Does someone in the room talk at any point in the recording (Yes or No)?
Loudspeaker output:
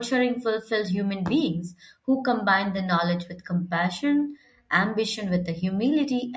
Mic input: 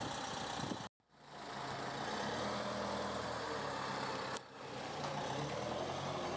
No